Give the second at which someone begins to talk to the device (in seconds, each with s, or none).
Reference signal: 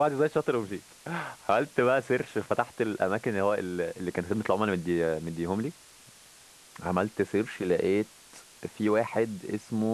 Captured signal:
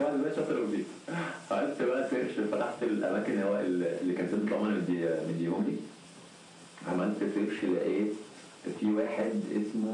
none